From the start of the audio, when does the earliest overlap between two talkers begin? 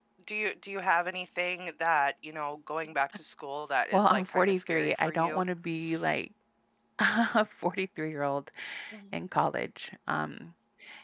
4 s

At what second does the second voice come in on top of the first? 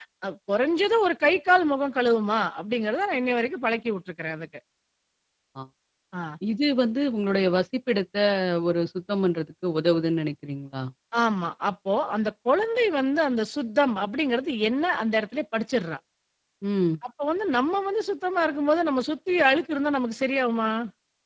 none

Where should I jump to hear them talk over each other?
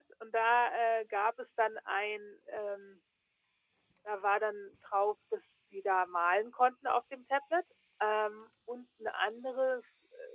none

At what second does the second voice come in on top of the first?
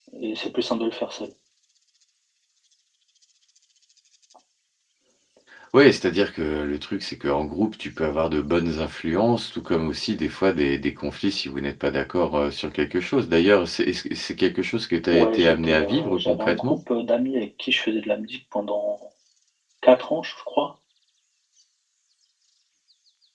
15 s

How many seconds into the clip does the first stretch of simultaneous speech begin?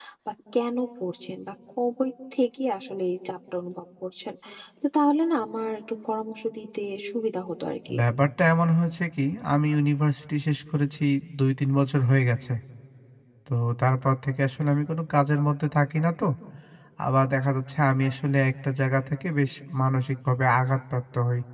none

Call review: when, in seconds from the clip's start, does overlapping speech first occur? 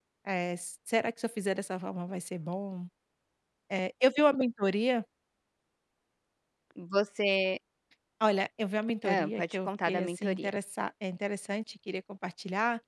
9 s

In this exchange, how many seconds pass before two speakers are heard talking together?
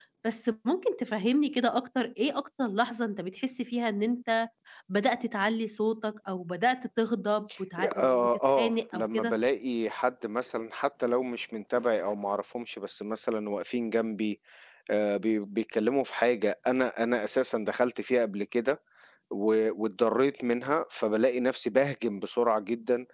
8 s

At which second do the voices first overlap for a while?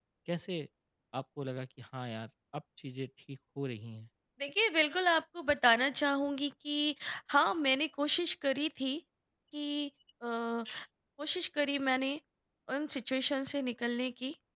none

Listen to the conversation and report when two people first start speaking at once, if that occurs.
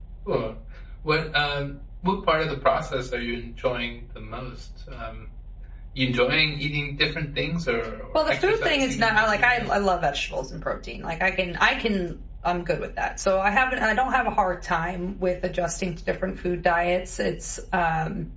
8 s

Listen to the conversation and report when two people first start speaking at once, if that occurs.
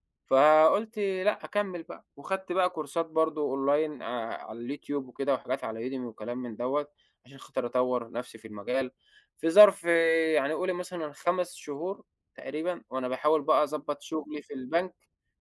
none

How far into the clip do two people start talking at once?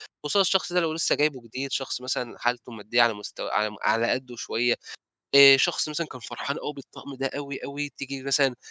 none

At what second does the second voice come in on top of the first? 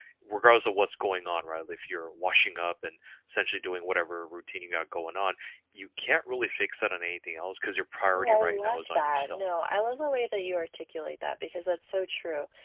8 s

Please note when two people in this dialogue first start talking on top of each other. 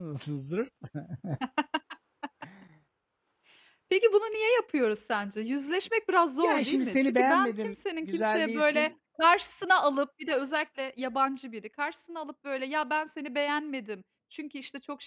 6 s

